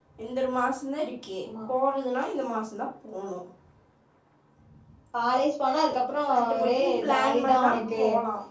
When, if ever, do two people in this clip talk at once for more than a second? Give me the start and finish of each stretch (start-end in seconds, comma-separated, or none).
6.3-7.8